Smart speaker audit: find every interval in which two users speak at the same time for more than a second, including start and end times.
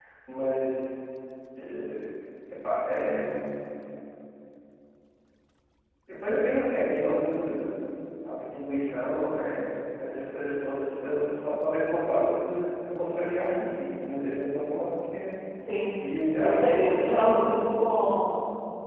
16.4-17.6

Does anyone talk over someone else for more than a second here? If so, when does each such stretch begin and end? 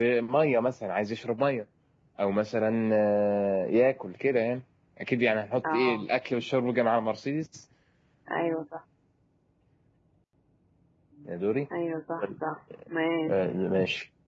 none

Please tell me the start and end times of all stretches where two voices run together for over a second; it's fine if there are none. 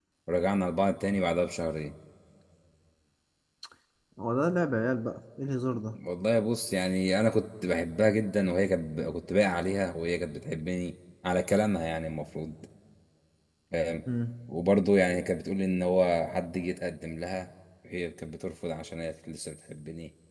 none

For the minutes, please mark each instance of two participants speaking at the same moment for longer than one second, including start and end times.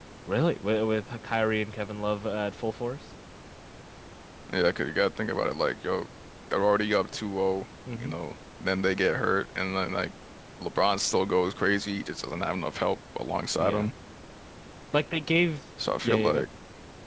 none

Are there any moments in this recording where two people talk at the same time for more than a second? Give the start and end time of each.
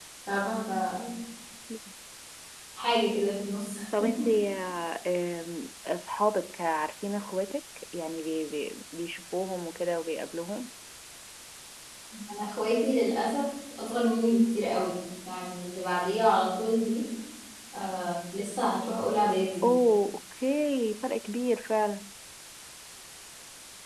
none

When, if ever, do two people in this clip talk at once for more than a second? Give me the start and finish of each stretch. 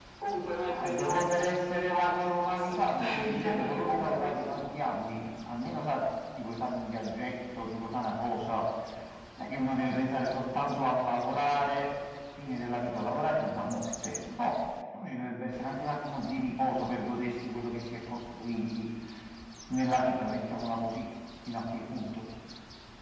0.7-4.4

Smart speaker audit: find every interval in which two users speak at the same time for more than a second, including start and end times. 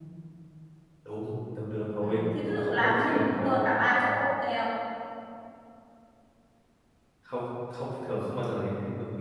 2.0-3.6

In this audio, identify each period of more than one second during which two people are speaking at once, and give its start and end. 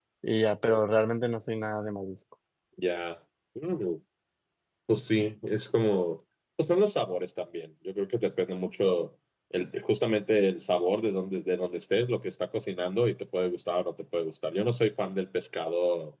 none

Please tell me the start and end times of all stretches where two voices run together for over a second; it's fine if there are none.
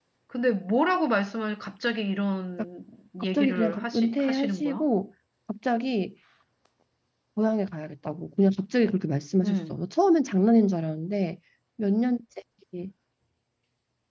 3.3-4.9

